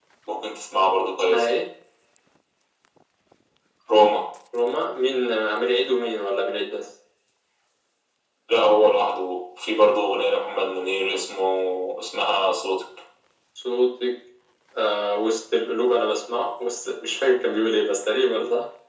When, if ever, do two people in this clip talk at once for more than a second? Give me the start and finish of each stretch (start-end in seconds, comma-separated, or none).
none